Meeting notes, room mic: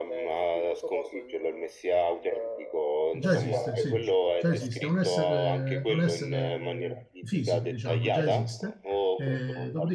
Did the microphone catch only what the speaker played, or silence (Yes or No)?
No